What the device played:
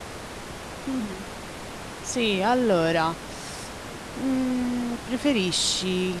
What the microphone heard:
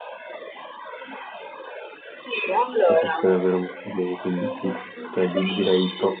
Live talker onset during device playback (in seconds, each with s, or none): 2.8 s